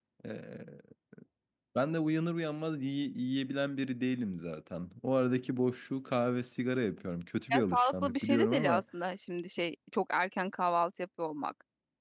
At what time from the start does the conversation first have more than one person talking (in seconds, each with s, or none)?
7.5 s